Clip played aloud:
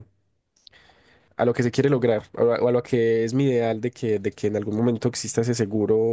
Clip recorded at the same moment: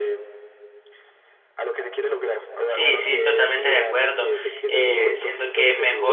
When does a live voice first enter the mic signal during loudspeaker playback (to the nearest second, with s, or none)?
3 s